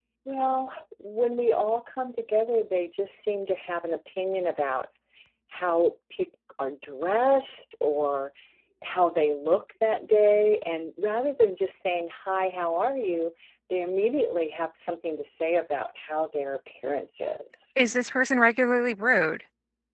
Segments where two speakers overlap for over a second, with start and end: none

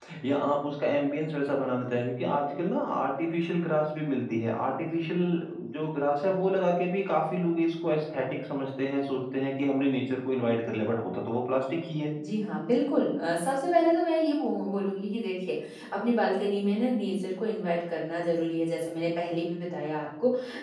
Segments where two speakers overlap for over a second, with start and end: none

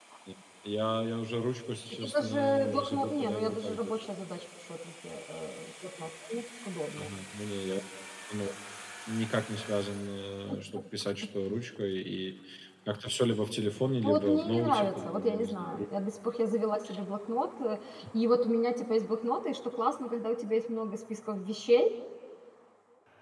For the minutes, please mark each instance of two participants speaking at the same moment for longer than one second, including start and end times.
1.9-4.1, 14.0-15.9

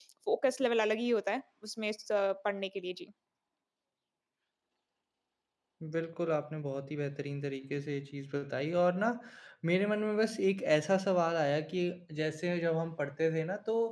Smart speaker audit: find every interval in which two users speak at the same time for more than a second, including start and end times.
none

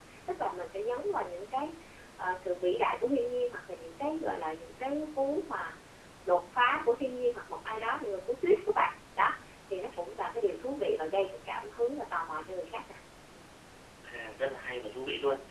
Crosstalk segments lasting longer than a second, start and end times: none

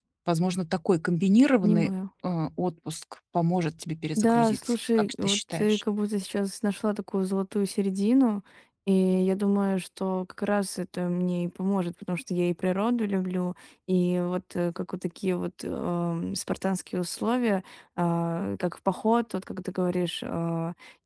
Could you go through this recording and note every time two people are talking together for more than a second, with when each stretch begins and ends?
4.2-5.8

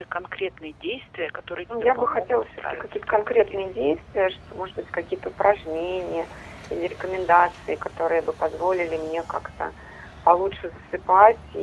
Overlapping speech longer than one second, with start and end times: 1.7-3.7

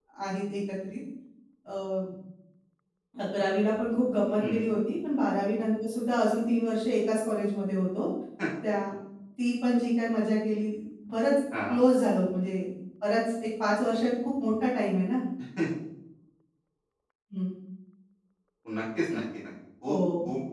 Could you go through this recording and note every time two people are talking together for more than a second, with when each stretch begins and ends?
none

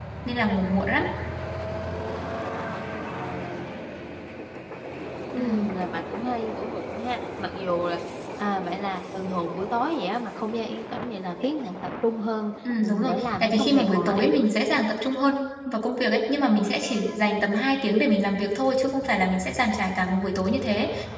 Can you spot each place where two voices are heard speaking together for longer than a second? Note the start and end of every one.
13.0-14.3

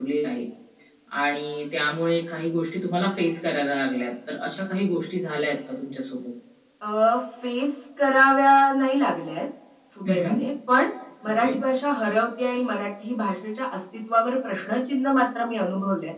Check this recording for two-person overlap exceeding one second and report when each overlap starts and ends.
none

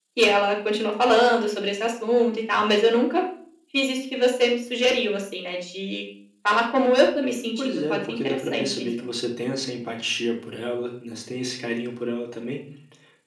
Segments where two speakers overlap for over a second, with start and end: 7.6-8.9

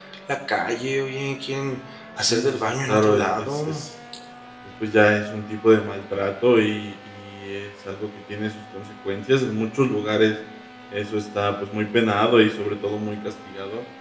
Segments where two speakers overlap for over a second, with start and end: 2.2-3.8

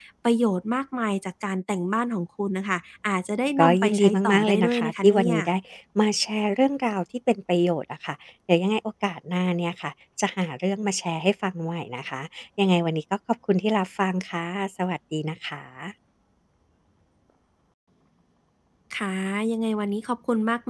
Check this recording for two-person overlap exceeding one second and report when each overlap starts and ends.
3.6-5.3

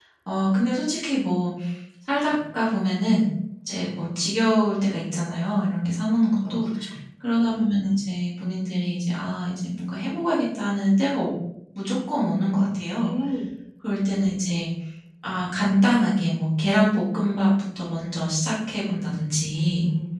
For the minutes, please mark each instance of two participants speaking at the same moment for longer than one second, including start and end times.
none

